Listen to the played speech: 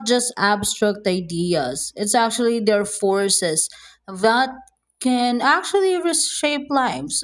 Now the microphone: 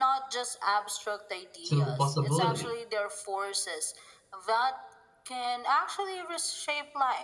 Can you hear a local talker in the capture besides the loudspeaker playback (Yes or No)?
Yes